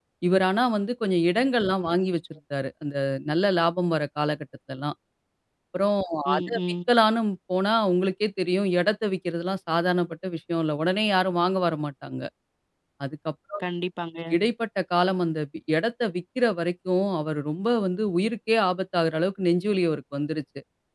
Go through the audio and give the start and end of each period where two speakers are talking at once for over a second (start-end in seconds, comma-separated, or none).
none